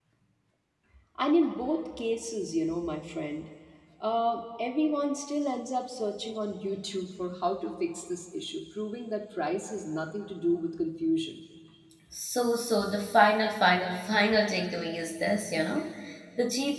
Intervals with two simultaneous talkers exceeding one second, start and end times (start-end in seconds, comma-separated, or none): none